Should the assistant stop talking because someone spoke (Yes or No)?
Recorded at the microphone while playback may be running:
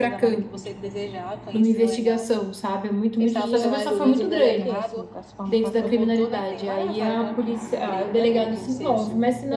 Yes